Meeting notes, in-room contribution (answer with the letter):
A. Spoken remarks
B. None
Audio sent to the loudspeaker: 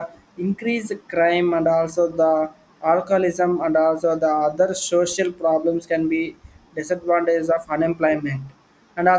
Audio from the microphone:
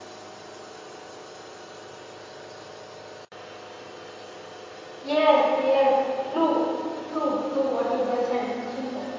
A